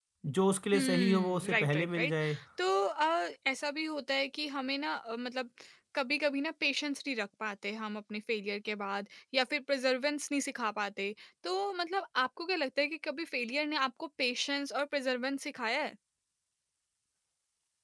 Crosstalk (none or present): present